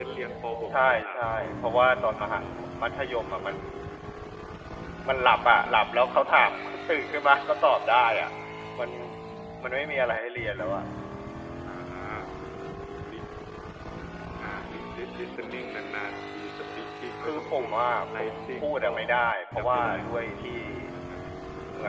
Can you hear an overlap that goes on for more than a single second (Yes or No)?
Yes